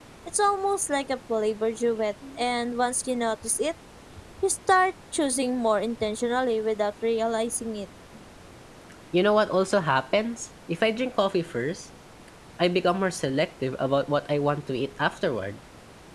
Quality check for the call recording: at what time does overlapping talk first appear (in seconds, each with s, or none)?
none